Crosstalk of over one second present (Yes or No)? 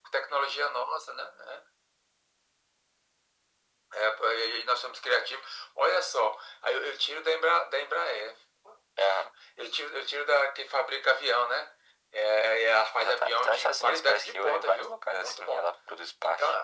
Yes